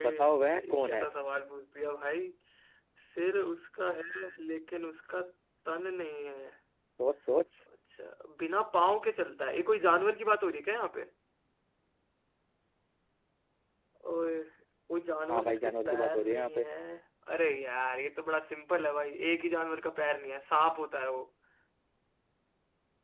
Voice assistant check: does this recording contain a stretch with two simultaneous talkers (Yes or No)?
Yes